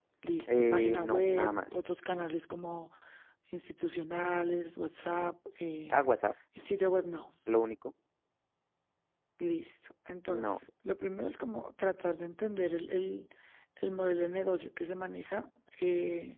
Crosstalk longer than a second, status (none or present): present